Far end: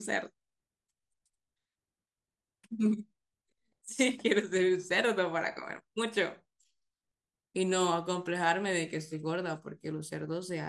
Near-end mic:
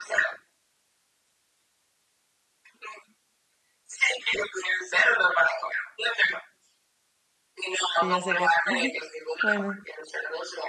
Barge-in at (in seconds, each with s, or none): 7.9 s